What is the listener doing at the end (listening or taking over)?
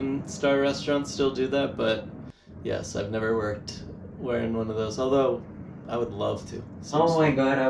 taking over